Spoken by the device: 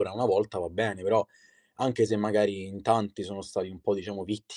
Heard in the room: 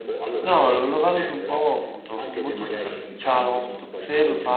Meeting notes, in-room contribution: present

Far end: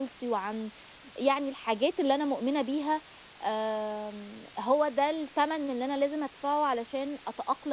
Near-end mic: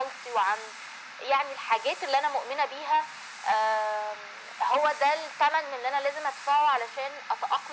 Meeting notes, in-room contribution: none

